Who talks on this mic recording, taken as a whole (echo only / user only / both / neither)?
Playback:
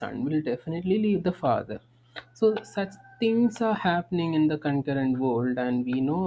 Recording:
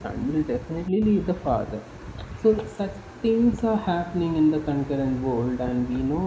echo only